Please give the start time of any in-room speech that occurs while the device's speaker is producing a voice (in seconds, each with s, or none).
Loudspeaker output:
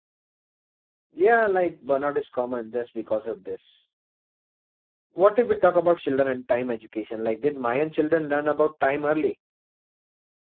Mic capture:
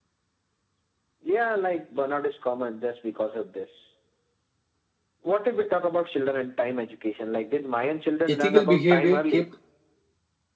8.3 s